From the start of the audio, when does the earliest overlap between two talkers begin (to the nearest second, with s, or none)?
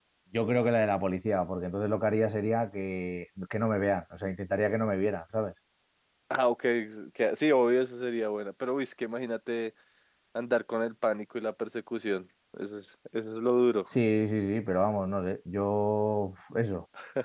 none